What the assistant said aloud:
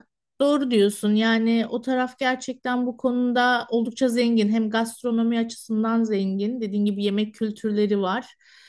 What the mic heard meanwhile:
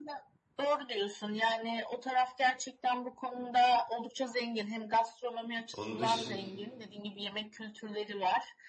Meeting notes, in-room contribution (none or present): present